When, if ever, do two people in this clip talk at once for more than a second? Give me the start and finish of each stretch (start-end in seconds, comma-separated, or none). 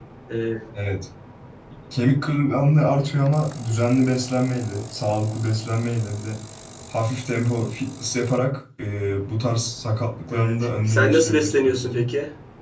10.3-12.1